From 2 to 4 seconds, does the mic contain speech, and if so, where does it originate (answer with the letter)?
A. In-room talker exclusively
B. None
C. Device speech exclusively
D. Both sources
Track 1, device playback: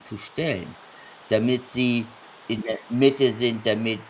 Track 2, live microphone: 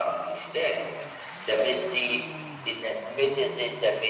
C